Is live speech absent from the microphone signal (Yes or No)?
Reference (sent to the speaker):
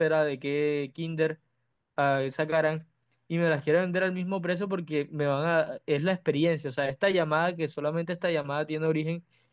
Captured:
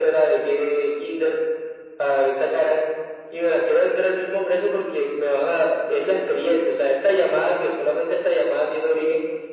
Yes